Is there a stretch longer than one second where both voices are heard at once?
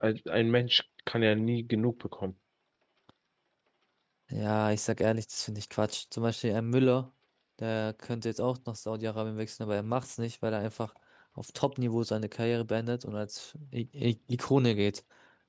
No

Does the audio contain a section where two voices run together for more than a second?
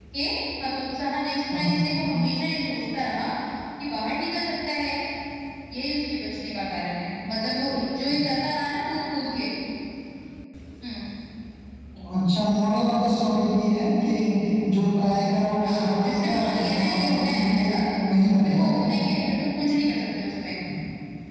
Yes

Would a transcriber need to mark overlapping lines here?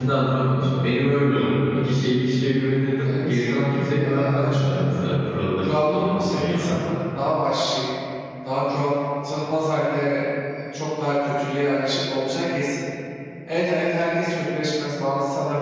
Yes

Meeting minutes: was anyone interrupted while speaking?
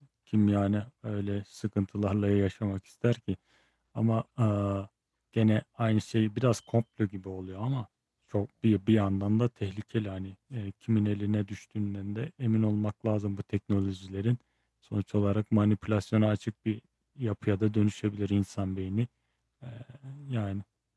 No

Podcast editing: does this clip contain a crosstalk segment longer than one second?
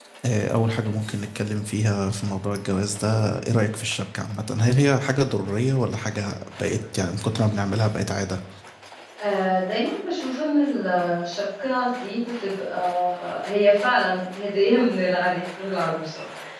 No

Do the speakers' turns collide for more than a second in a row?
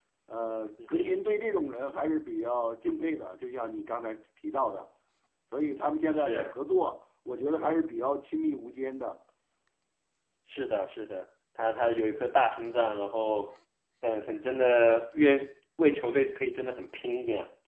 No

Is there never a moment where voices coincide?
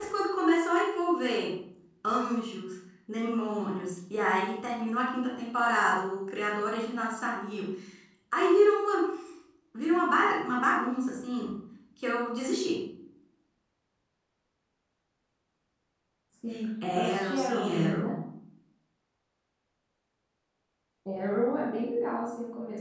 No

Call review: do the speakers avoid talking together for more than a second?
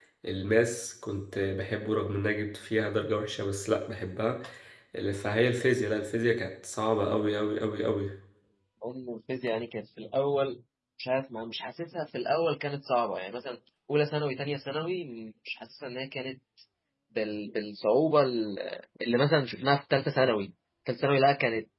Yes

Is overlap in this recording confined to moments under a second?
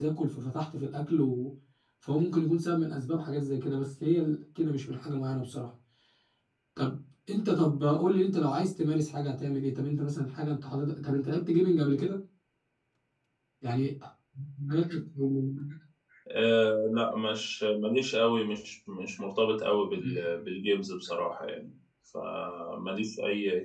Yes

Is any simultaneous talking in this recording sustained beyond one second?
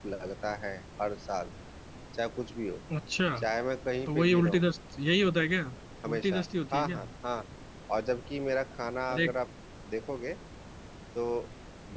No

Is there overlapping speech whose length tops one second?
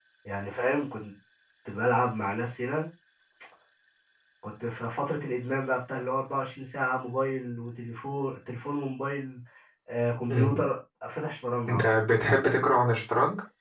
No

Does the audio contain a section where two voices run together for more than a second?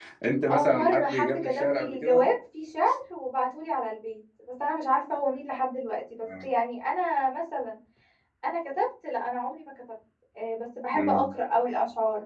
Yes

